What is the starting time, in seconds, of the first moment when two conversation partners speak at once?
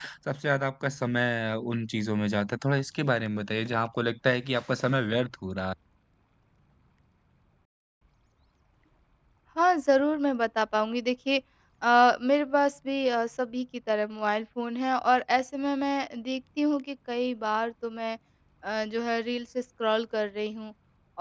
none

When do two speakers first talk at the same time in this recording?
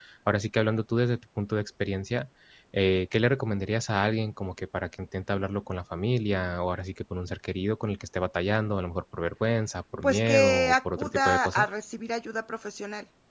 10.0 s

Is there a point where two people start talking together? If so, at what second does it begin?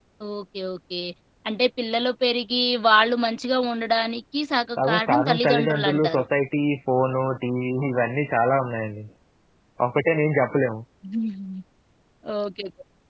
4.8 s

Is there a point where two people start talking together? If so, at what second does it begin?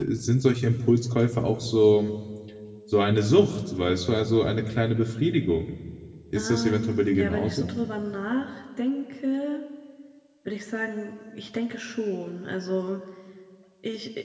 6.3 s

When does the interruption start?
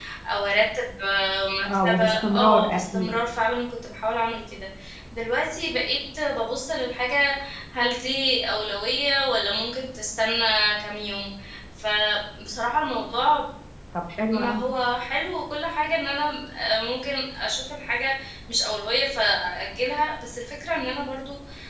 1.8 s

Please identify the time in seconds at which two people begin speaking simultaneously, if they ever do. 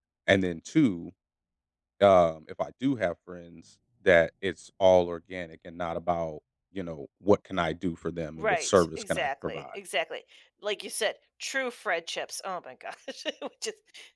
8.4 s

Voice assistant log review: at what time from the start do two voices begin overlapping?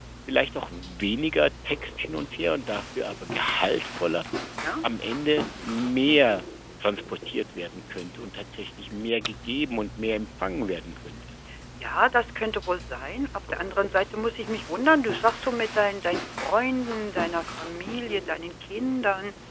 none

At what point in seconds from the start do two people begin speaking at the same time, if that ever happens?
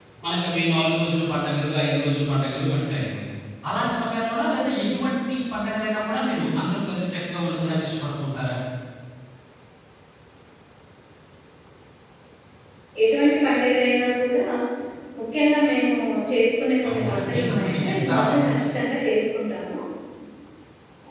16.8 s

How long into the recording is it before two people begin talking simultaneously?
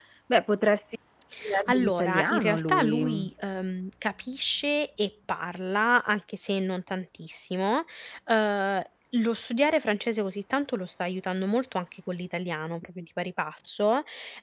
1.6 s

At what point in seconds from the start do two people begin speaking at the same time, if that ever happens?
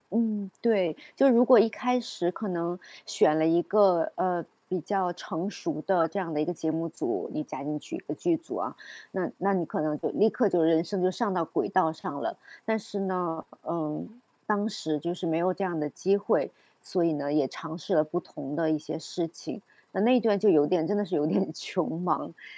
none

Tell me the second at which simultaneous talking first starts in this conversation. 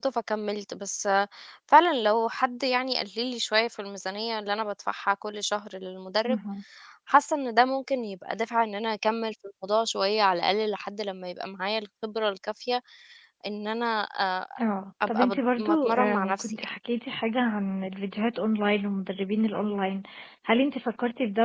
15.1 s

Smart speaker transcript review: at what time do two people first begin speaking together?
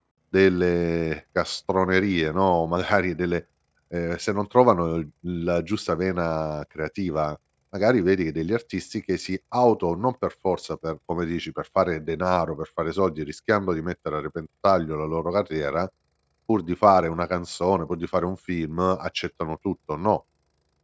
none

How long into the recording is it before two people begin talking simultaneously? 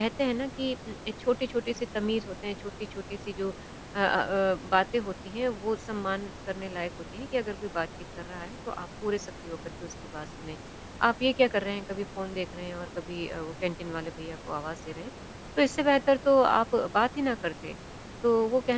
none

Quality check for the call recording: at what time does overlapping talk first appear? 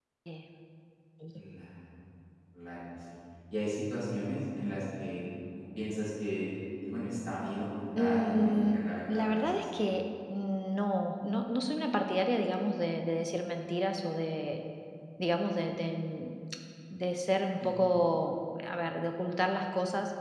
8.0 s

